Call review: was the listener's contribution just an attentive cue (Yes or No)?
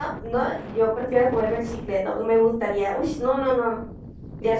No